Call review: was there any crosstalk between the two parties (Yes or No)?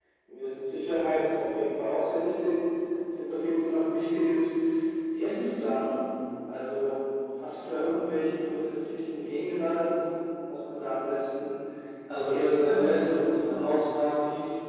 Yes